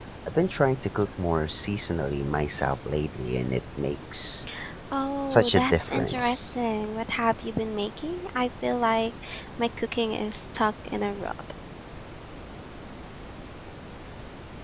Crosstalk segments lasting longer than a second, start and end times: 5.2-6.5

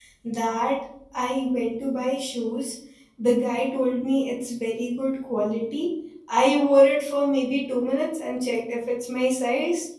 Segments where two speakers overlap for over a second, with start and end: none

